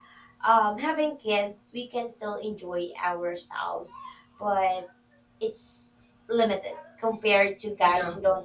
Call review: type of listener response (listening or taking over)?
listening